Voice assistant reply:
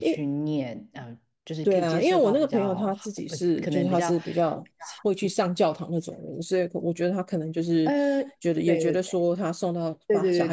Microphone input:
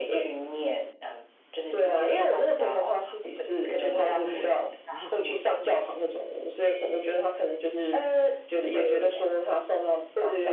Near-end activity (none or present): present